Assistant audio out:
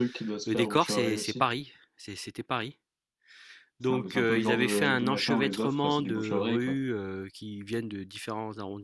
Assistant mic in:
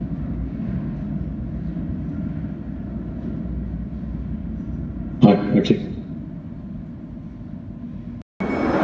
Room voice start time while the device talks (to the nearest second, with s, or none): 5 s